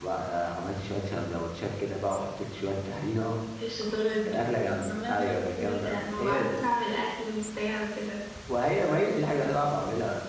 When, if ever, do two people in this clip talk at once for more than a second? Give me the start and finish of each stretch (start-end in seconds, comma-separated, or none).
4.9-6.6